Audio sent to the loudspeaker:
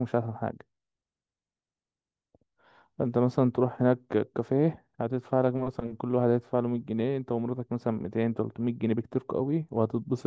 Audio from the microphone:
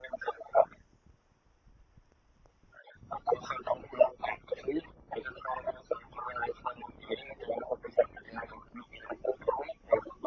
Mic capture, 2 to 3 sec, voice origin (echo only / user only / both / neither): neither